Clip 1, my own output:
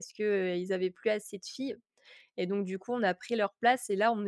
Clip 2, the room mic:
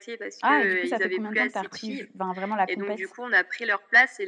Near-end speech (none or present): present